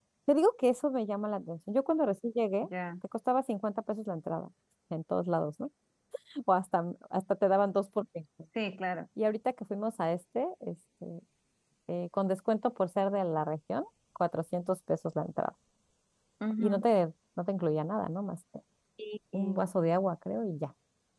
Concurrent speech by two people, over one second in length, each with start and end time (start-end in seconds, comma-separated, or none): none